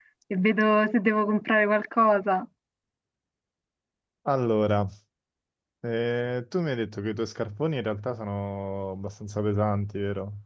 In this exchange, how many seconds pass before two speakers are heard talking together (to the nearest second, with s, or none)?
none